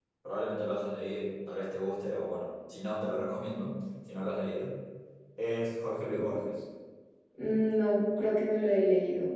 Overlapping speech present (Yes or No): No